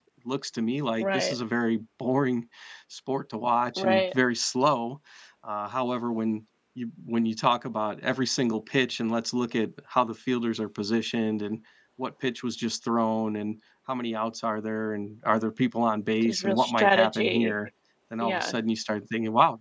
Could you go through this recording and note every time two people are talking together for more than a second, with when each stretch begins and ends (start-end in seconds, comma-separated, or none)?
16.2-17.6